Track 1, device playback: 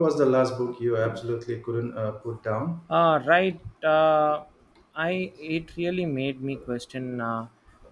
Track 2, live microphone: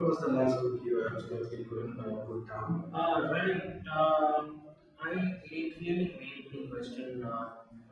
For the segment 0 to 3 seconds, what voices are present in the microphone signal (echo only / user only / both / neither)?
echo only